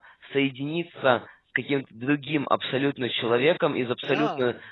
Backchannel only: Yes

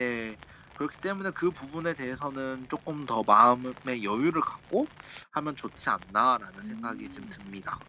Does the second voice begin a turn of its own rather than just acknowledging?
Yes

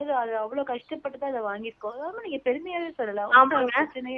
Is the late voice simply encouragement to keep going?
No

